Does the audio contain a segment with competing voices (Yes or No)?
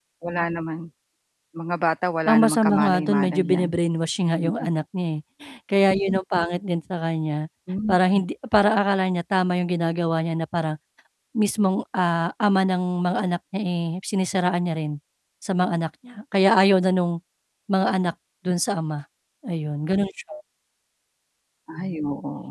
Yes